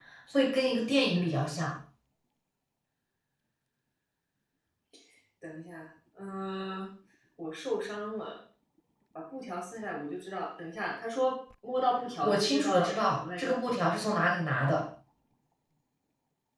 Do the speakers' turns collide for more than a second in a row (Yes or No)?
Yes